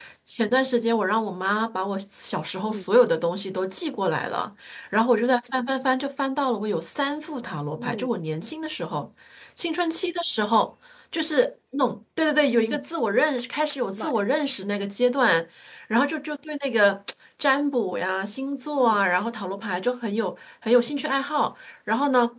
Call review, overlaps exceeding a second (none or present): none